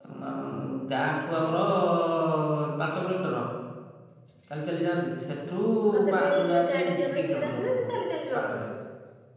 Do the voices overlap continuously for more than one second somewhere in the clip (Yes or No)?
Yes